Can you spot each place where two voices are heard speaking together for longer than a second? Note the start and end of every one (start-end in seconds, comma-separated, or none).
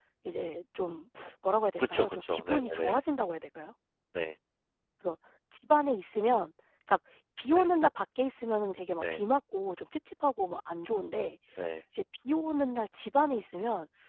1.8-3.0